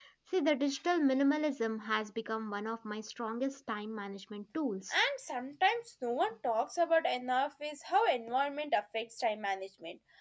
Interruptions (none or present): none